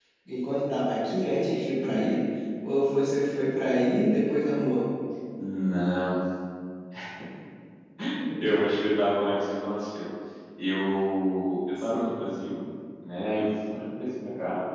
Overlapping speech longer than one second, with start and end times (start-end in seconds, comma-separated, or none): none